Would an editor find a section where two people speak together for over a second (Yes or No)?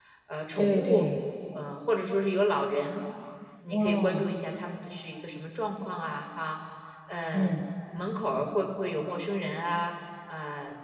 No